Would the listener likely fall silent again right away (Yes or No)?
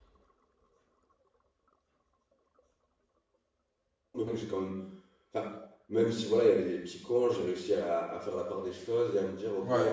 Yes